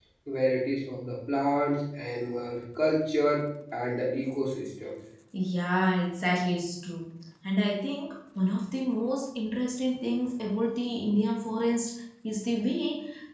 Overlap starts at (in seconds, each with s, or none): none